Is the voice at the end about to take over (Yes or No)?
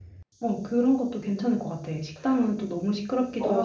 Yes